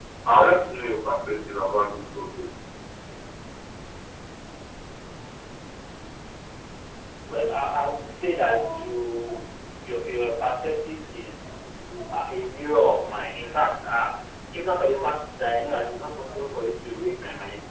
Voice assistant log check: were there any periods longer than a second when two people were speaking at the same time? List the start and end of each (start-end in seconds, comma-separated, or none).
none